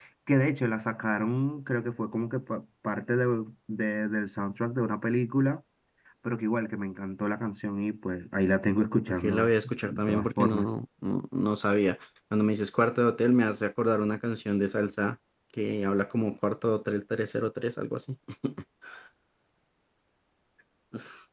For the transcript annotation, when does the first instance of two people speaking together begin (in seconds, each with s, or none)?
9.2 s